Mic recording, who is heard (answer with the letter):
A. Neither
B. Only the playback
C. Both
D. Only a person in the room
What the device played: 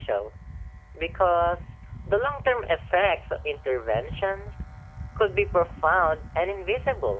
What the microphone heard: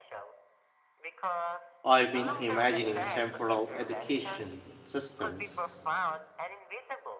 C